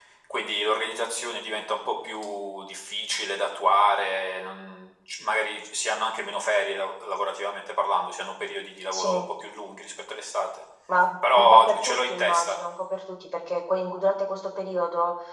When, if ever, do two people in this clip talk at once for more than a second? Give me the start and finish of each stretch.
11.3-12.6

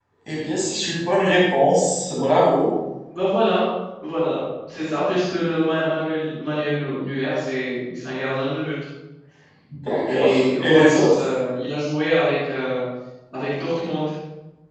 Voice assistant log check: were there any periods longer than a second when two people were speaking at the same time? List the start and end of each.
10.1-11.3

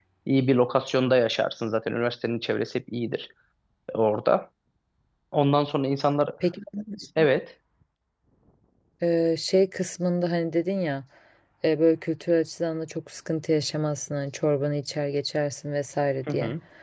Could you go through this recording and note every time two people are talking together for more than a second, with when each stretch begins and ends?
none

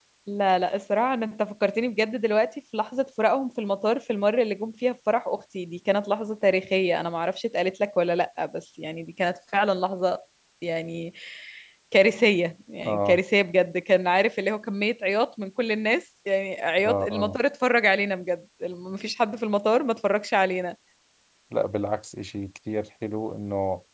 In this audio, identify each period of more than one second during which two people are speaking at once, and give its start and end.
none

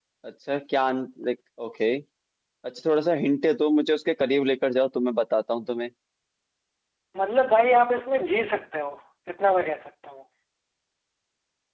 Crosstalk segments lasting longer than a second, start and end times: none

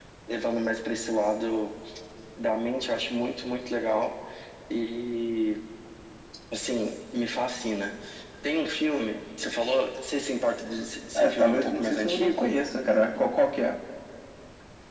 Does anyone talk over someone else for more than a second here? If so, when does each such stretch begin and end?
11.2-12.5

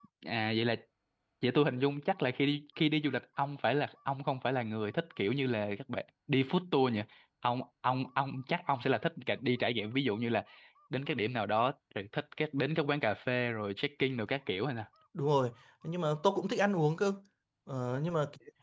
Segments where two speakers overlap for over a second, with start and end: none

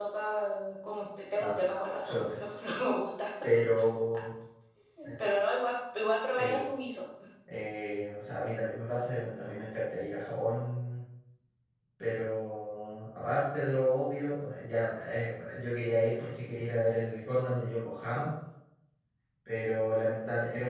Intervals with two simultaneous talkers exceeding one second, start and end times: none

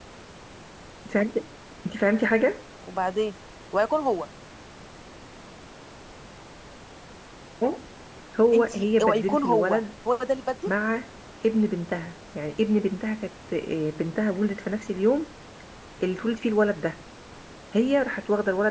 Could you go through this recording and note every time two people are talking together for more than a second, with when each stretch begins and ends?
8.5-9.8

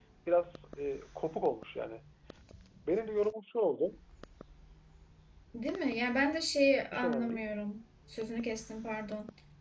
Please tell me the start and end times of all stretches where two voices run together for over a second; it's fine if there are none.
none

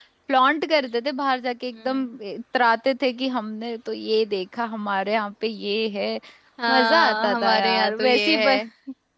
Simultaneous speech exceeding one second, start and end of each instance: 6.7-8.6

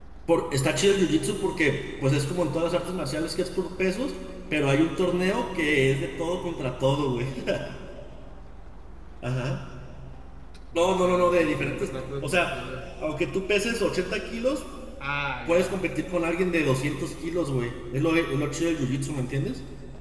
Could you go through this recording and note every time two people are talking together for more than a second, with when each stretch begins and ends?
10.8-12.6

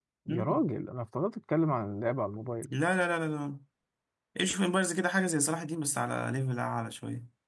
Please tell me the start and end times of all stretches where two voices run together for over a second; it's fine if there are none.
none

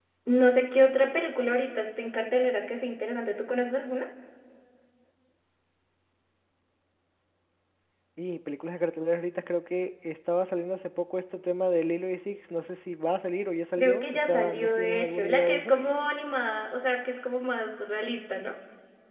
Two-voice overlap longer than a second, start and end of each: 13.8-15.8

